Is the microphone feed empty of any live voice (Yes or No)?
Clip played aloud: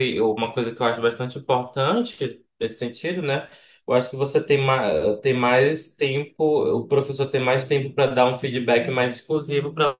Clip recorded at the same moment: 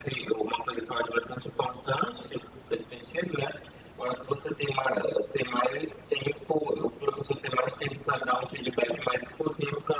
Yes